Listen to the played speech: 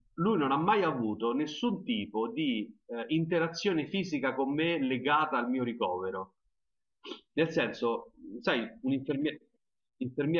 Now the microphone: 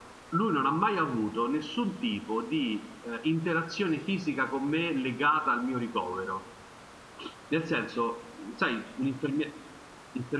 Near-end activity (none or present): none